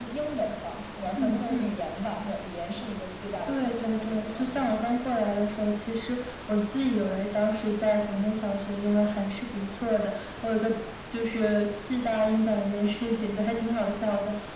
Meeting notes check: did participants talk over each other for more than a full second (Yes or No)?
Yes